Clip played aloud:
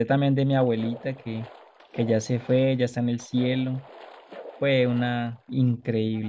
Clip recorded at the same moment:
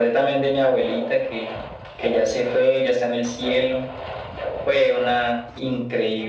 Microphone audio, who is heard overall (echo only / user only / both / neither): echo only